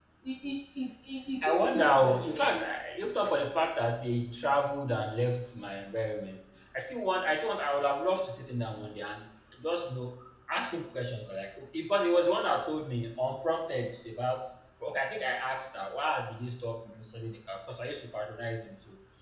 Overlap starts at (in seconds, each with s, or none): 1.4 s